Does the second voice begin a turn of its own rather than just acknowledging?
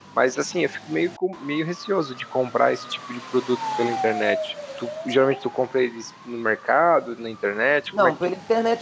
Yes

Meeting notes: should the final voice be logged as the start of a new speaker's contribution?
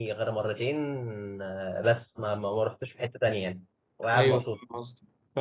Yes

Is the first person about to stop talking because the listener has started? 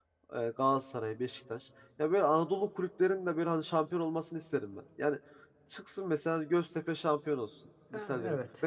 No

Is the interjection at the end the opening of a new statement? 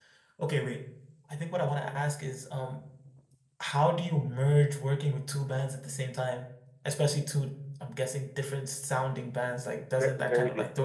Yes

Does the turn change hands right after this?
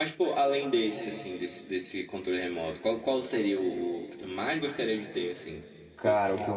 Yes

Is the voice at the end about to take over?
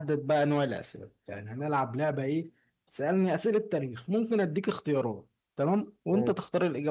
No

